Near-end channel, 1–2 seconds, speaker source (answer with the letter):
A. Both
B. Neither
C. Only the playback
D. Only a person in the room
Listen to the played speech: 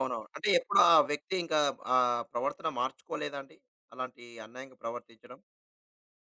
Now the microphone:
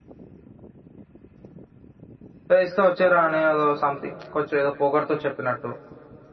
B